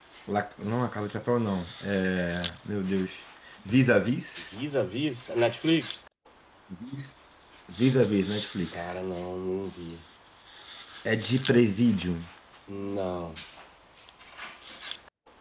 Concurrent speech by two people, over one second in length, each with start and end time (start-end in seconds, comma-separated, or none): none